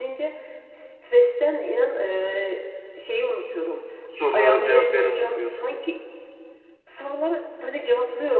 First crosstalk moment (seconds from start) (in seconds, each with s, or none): 4.3 s